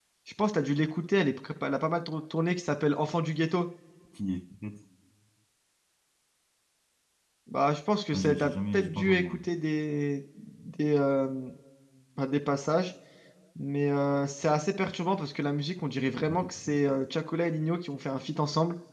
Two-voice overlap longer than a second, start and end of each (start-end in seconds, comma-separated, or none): 8.1-9.4